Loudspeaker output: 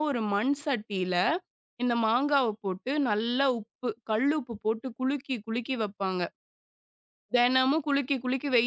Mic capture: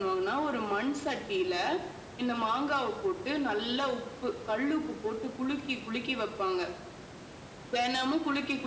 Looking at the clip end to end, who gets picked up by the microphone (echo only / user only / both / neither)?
echo only